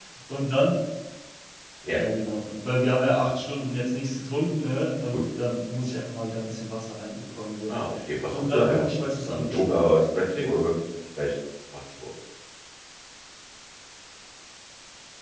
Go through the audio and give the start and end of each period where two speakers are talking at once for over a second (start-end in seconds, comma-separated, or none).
8.3-9.9